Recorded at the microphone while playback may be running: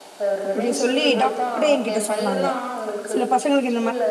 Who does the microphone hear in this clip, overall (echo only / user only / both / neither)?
both